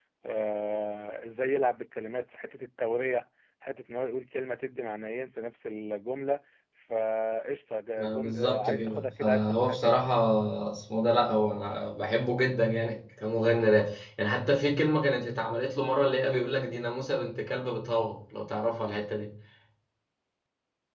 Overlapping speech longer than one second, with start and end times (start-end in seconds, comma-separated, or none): 8.0-10.0